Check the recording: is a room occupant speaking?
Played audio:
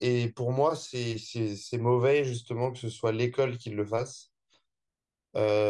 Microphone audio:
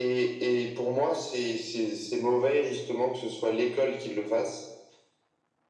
No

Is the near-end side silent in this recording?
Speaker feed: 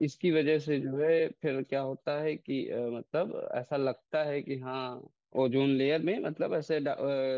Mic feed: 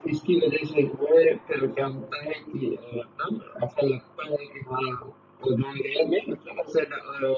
Yes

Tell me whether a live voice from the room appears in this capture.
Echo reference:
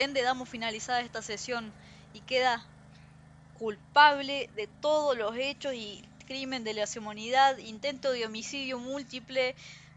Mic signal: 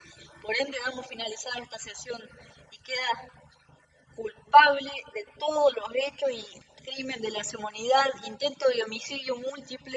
No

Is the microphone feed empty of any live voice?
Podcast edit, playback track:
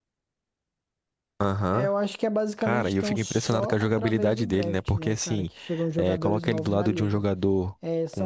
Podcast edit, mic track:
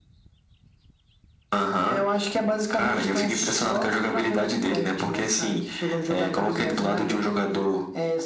Yes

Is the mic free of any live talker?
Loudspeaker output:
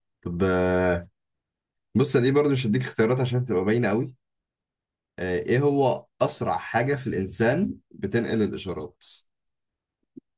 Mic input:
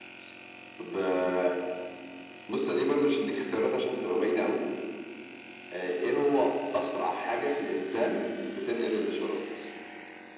Yes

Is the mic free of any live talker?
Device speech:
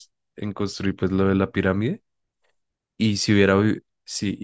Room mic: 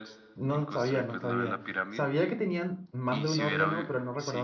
No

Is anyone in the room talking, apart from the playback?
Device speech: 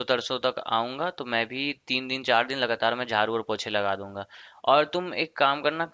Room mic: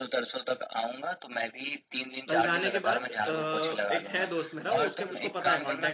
Yes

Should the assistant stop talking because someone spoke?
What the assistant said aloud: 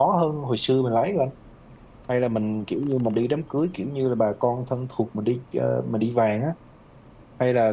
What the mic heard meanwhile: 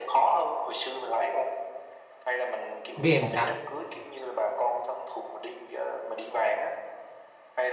Yes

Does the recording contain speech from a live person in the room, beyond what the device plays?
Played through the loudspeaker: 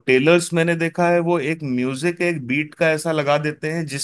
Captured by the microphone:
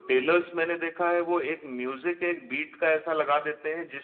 No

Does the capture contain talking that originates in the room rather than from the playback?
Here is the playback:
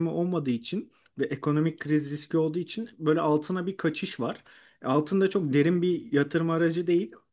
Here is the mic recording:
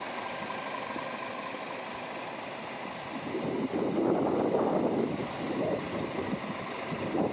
No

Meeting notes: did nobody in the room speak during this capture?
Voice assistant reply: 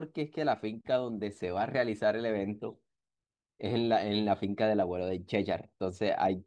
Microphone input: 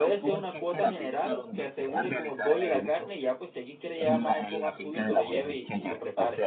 No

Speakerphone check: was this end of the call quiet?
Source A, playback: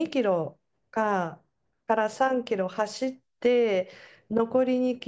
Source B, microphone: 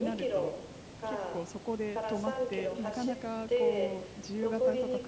No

